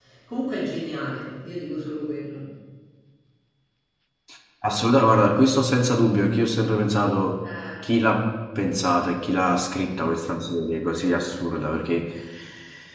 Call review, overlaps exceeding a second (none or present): none